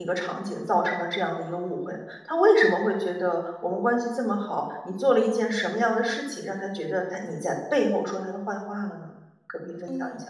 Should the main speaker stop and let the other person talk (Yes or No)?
Yes